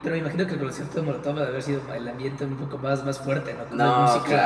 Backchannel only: No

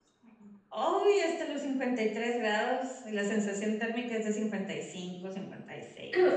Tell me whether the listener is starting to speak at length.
Yes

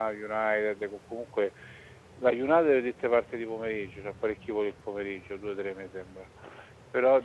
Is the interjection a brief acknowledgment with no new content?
Yes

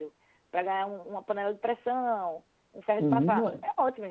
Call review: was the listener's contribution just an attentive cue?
No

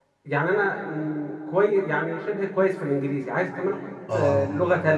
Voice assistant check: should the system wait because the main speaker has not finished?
Yes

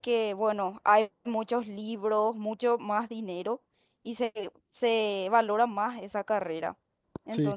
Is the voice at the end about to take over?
No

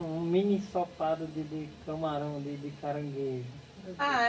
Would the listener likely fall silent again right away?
No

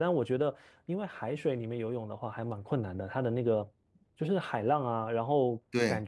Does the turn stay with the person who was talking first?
Yes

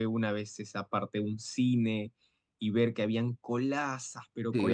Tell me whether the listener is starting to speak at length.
Yes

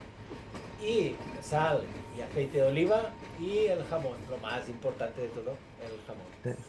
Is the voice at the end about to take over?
Yes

